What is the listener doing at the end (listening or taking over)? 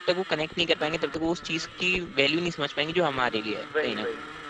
taking over